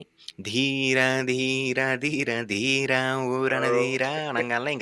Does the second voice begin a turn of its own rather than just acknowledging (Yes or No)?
No